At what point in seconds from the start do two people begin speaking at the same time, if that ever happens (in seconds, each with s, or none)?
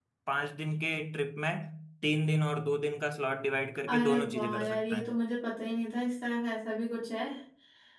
3.9 s